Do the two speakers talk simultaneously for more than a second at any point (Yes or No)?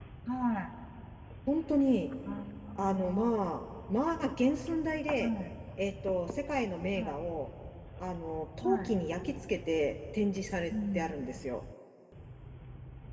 No